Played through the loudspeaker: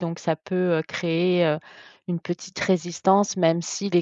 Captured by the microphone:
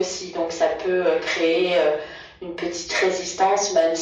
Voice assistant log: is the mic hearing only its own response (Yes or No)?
Yes